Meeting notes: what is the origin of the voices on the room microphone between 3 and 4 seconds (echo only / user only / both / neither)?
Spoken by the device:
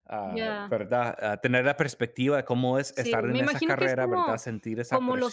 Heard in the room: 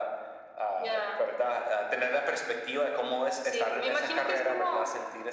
echo only